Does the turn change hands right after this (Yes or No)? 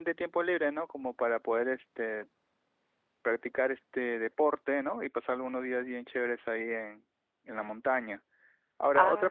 No